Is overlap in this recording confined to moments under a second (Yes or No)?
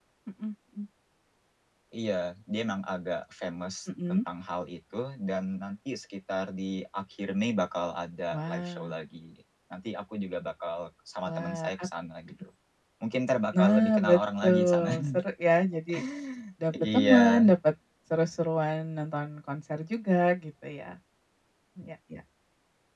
No